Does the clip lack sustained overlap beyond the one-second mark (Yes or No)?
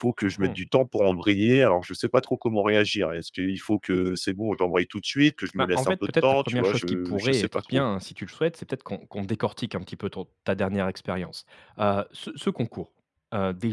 No